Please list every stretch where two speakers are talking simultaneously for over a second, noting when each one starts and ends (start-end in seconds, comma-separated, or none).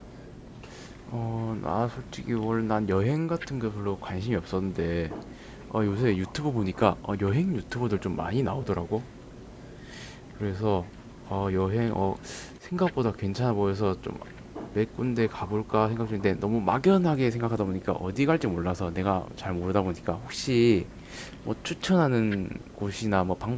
none